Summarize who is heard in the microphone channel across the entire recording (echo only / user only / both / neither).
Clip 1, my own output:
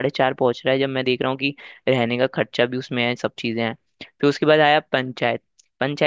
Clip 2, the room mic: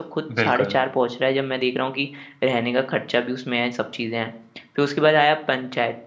both